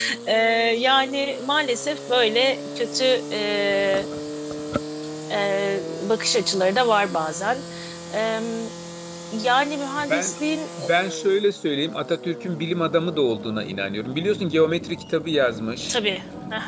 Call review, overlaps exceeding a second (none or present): none